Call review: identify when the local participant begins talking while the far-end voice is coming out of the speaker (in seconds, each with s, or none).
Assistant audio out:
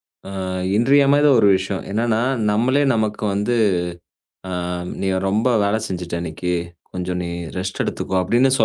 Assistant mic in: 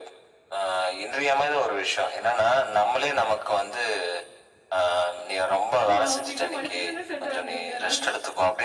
5.9 s